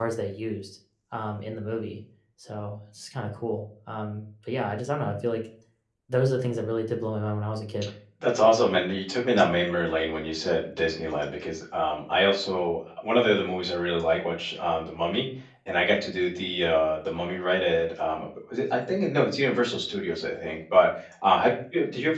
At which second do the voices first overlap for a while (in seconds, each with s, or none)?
none